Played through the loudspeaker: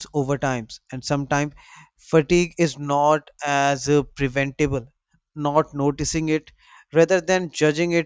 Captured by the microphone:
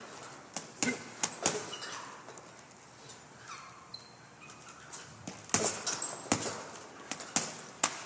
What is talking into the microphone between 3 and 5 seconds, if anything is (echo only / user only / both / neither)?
neither